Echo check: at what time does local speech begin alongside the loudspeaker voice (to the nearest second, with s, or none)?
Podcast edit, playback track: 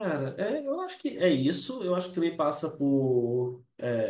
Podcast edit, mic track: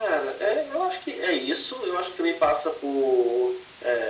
none